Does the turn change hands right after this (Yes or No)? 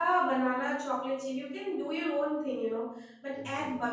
No